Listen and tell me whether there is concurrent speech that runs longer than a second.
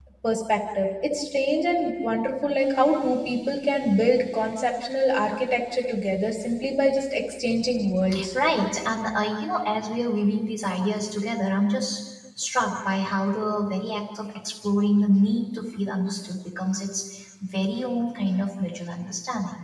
No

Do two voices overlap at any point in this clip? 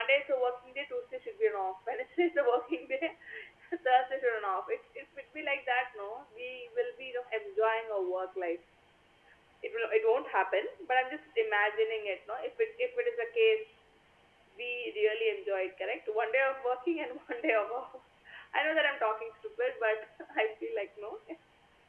No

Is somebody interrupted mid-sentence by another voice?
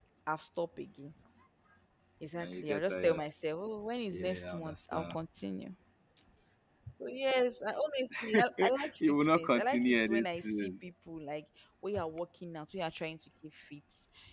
Yes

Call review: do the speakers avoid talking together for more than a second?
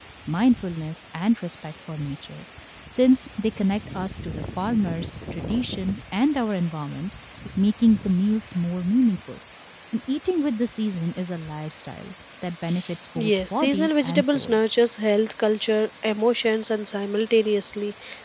No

